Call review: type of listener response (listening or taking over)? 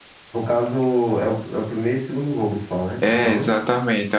taking over